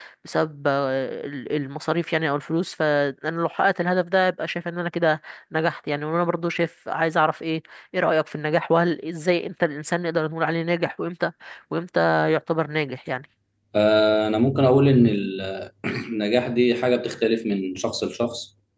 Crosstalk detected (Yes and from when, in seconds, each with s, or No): No